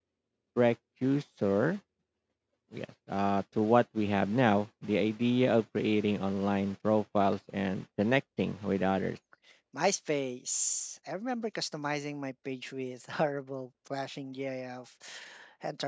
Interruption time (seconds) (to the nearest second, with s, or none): none